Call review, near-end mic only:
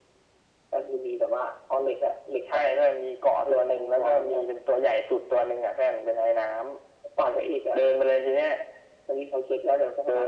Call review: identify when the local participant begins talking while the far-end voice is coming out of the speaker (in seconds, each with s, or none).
none